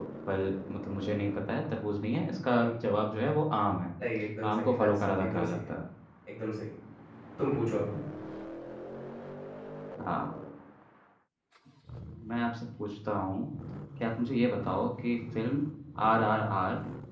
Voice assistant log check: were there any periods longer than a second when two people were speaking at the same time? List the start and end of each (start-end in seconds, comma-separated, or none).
4.4-5.7